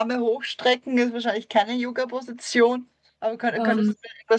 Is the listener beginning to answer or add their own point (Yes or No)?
No